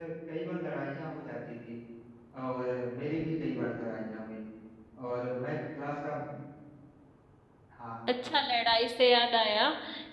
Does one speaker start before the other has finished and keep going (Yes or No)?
No